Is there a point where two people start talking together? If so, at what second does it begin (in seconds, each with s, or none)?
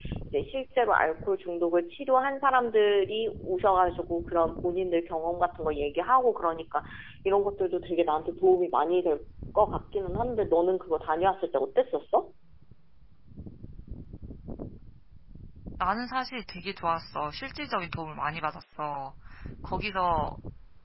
none